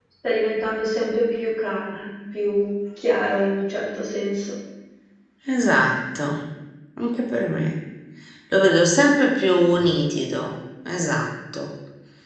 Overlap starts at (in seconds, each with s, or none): none